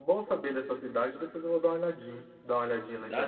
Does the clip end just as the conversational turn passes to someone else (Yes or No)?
No